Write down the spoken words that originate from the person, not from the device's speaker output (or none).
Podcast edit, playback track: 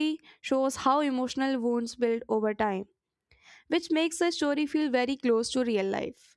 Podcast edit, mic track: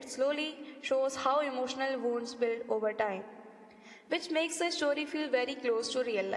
none